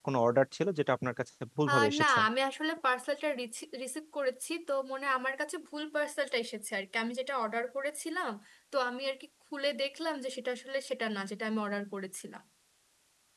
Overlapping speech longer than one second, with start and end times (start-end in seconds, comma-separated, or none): none